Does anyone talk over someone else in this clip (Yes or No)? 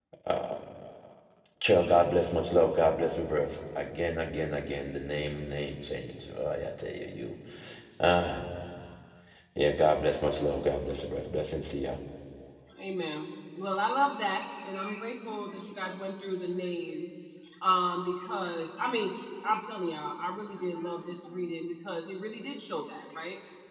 No